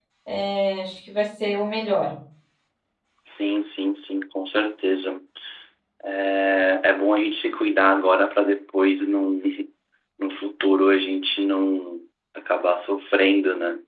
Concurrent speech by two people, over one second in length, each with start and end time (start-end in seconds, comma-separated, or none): none